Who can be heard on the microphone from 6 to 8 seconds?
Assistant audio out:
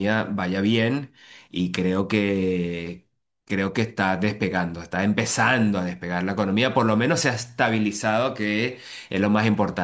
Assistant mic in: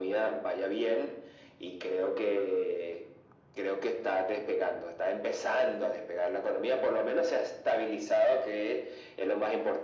echo only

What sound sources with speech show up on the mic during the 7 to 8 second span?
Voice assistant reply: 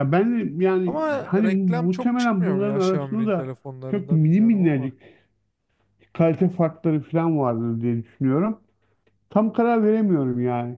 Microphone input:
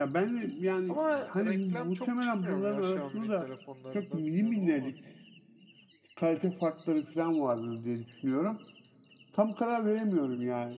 echo only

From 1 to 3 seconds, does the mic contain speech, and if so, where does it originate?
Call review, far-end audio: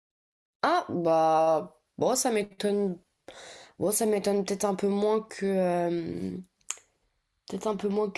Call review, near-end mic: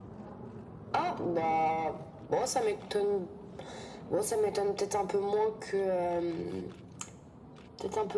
echo only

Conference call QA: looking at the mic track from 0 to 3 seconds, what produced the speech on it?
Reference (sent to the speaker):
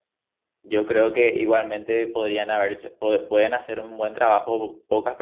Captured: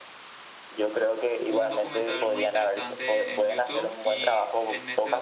both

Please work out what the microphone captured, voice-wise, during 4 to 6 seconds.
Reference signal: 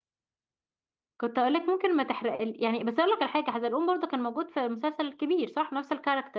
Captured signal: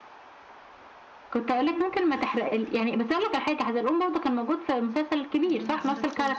both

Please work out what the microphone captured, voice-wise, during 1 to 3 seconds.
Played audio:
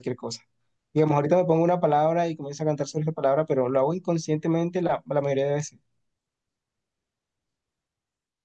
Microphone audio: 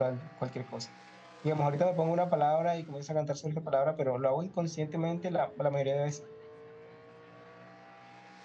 echo only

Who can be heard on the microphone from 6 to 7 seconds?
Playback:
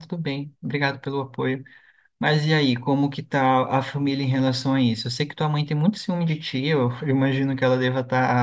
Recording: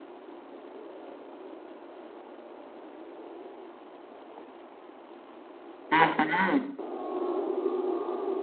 user only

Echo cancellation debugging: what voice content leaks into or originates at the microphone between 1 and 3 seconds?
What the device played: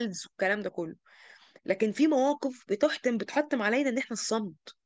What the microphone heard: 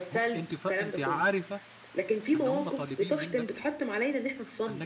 both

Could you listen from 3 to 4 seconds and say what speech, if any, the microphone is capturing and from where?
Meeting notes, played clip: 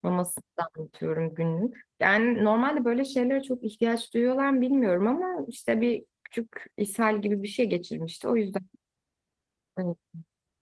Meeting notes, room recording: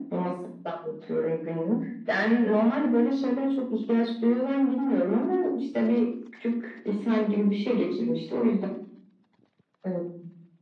echo only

